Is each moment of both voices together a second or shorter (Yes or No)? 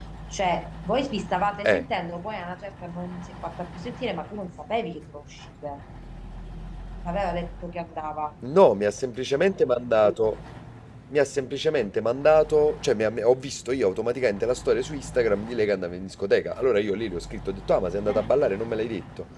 Yes